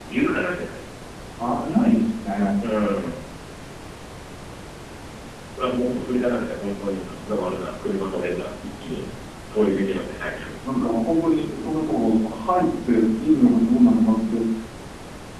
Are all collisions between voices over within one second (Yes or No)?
Yes